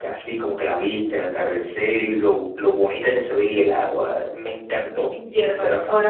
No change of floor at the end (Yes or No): No